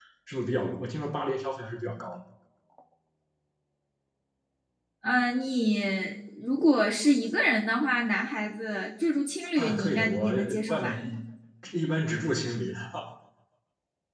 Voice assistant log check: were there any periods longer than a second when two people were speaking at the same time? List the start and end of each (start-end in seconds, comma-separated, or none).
9.6-11.0